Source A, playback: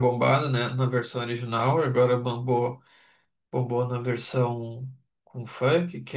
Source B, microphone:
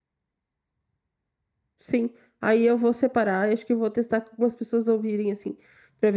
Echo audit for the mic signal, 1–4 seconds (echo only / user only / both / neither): user only